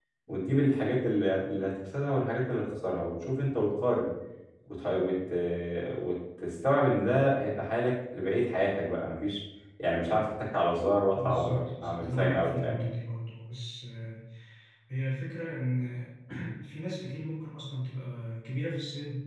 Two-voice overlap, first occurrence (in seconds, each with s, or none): 11.1 s